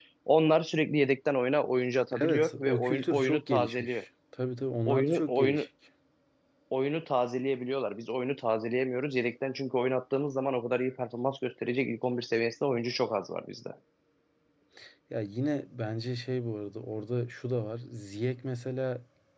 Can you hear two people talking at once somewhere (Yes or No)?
Yes